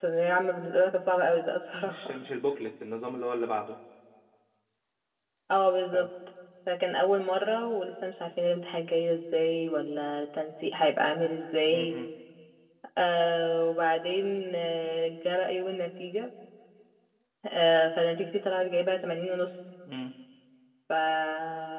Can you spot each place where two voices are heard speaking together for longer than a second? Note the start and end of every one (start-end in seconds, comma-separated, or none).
none